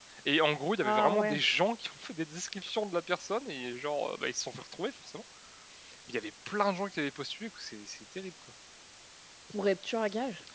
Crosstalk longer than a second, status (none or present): none